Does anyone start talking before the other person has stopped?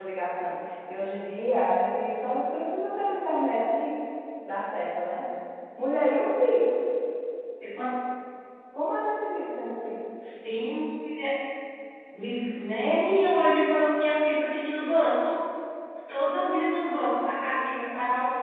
No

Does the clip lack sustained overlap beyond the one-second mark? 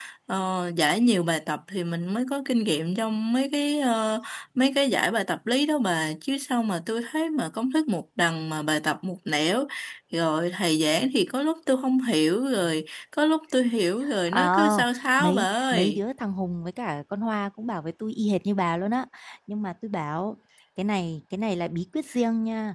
No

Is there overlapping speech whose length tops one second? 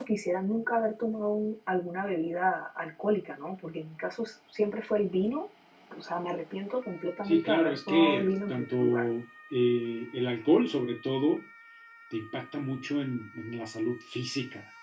Yes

